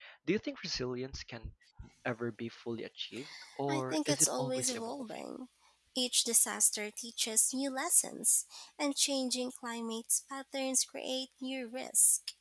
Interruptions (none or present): present